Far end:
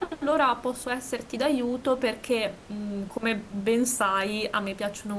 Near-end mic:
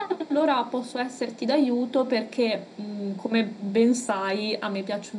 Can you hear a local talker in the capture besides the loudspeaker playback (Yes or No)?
No